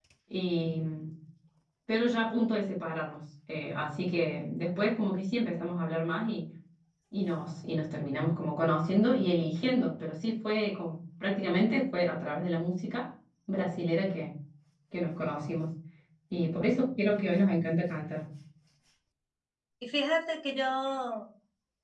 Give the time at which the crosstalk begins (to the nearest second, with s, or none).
none